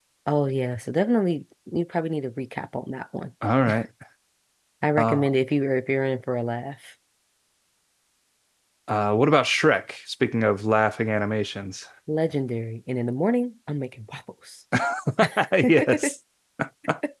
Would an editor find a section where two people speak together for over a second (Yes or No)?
No